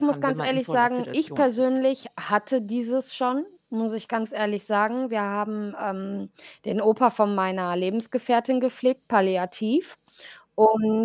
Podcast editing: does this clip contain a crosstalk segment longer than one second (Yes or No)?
Yes